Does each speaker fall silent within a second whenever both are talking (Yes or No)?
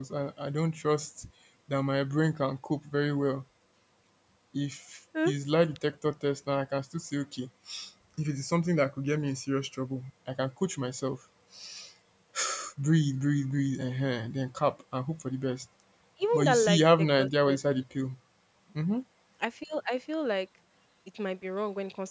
No